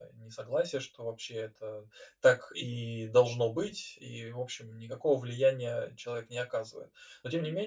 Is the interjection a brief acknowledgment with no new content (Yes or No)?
Yes